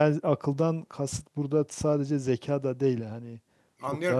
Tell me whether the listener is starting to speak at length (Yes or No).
Yes